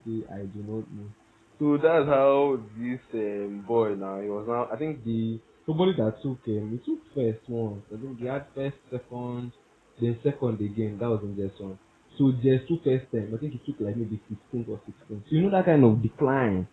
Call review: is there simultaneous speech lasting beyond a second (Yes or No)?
No